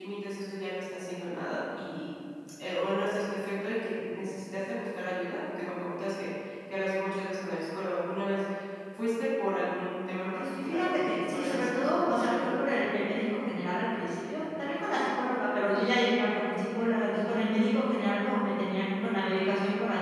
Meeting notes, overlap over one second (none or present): present